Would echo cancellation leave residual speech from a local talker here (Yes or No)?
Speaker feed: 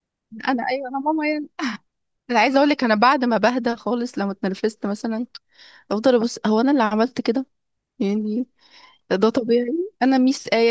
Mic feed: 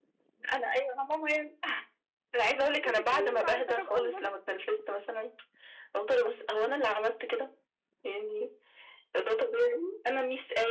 Yes